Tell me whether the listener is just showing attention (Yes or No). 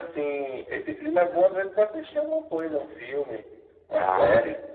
No